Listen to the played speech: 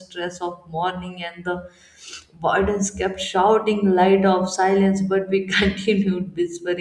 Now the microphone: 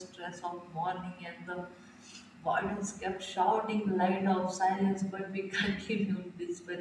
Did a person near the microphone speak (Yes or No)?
No